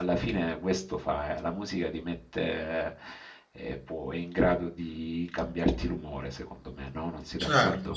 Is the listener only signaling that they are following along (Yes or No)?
No